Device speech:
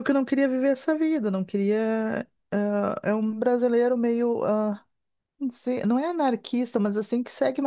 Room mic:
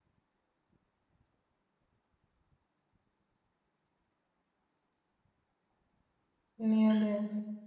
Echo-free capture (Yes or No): Yes